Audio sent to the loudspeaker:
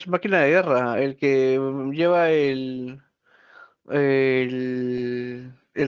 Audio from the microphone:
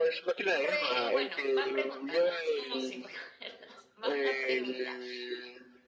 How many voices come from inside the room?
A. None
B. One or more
B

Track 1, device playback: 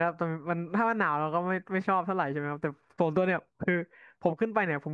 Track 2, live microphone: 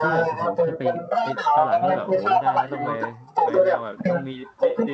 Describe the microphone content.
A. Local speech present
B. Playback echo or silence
A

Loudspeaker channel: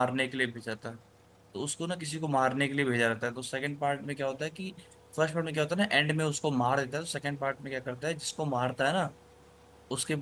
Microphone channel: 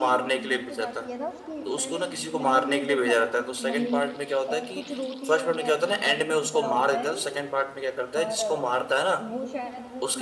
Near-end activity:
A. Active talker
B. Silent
A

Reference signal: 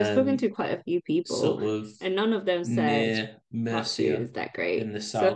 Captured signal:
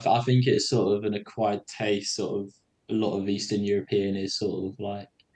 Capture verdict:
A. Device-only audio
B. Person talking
B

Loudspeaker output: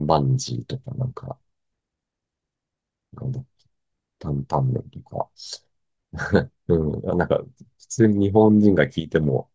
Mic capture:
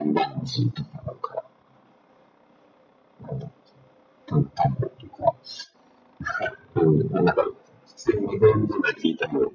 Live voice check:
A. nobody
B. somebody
A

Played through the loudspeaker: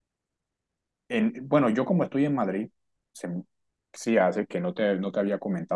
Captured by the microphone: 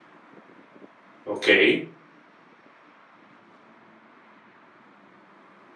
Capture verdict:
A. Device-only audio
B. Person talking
B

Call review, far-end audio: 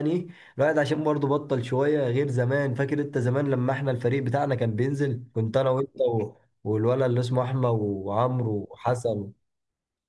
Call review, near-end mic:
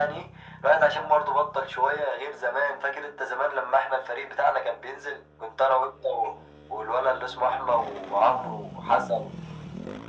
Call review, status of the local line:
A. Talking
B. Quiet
B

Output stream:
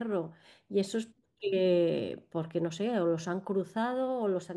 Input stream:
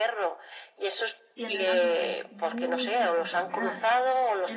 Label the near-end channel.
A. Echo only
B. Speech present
B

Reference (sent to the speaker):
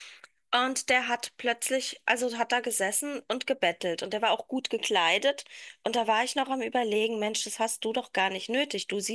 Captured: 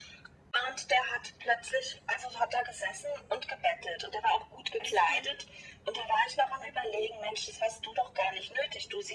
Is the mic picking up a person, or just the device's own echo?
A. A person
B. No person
A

